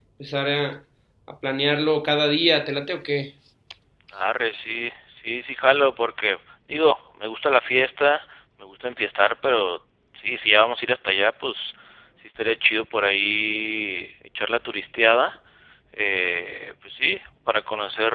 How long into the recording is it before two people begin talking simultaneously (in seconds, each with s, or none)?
none